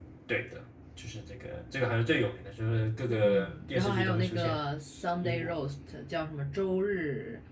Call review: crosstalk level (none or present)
present